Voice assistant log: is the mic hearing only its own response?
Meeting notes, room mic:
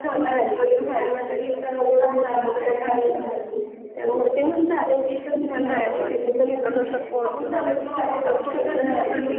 No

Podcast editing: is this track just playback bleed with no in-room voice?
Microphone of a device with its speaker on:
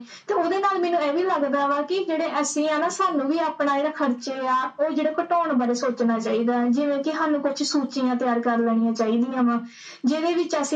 Yes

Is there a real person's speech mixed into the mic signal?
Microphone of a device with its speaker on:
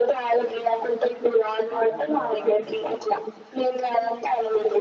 Yes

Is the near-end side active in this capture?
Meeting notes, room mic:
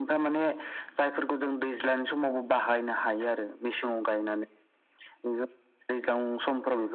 No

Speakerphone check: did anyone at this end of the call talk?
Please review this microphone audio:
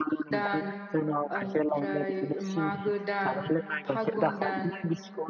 Yes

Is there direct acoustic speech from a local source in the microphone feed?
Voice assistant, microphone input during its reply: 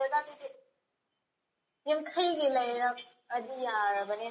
Yes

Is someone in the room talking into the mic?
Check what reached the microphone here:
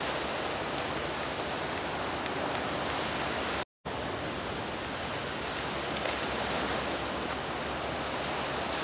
No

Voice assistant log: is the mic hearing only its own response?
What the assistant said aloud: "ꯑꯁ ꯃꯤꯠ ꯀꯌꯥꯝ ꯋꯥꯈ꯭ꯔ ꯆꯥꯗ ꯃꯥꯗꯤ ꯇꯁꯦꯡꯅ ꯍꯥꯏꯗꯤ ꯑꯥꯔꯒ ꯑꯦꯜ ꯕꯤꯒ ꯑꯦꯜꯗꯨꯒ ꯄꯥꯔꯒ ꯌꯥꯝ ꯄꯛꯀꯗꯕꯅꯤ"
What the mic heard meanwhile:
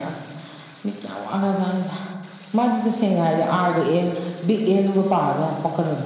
Yes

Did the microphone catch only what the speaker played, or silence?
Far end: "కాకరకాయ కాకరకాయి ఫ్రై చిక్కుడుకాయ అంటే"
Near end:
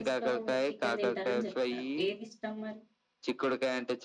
No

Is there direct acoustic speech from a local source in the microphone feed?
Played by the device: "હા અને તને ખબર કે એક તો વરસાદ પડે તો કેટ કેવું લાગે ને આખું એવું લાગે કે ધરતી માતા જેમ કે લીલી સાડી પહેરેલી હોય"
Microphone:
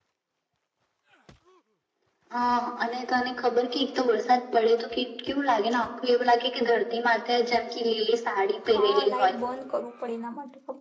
Yes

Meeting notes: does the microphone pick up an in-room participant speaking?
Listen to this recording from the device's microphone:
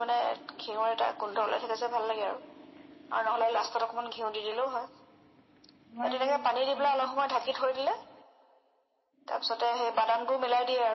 Yes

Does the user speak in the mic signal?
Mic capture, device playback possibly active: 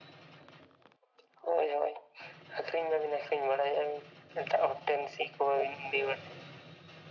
No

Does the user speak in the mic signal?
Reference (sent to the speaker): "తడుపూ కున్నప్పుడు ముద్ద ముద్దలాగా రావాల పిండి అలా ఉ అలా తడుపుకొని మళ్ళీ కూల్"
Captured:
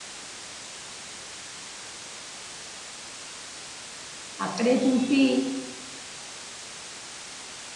Yes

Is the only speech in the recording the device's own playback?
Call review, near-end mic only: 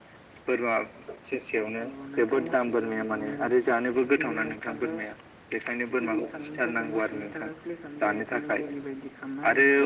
Yes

